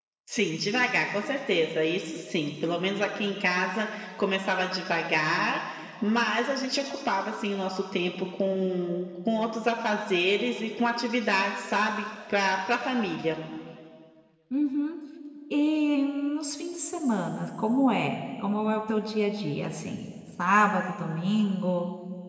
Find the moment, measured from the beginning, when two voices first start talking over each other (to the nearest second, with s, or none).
none